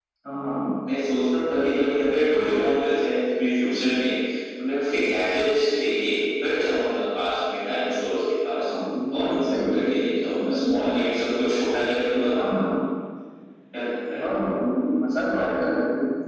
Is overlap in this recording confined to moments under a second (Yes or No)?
No